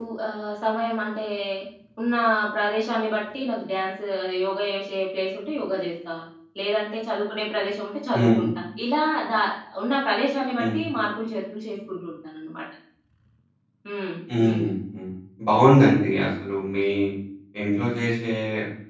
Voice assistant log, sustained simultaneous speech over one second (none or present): none